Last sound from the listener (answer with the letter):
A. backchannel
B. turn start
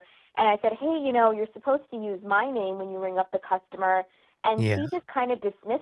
A